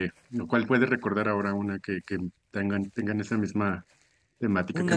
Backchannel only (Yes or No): No